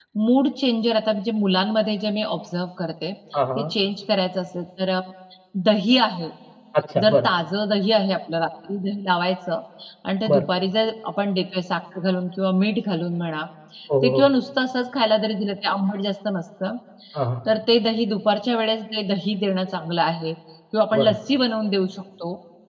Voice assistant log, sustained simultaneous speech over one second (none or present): none